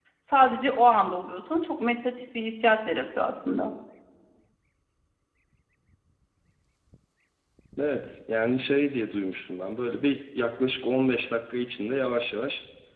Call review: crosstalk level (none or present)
none